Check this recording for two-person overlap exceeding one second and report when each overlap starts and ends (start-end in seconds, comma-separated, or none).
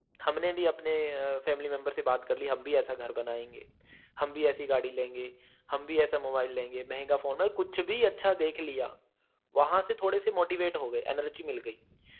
none